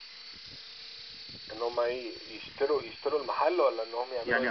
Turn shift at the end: Yes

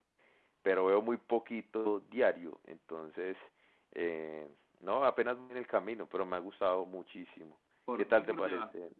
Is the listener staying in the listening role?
No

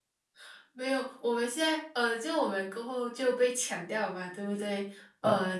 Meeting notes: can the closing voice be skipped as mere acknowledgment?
Yes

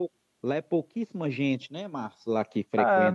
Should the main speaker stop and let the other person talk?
Yes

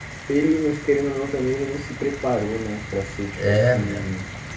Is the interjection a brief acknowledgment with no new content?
No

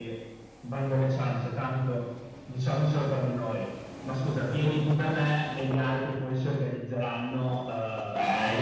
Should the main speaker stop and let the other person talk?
Yes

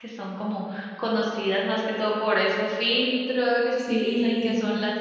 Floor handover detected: No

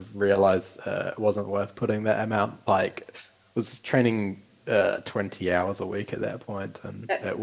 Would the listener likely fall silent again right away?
No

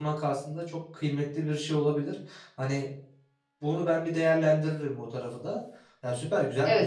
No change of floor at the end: No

